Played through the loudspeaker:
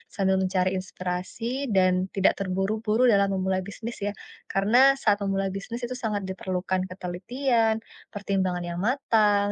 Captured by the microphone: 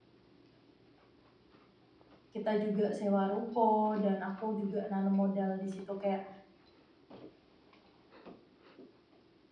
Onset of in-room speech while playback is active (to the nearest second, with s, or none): 2 s